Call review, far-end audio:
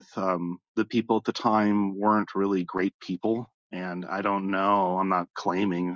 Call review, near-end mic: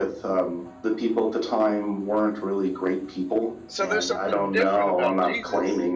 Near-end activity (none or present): present